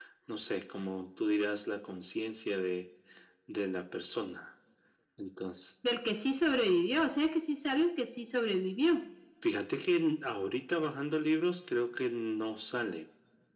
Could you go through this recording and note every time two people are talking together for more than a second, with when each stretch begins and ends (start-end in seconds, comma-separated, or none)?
none